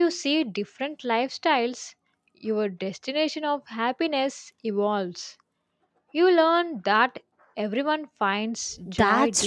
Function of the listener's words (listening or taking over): taking over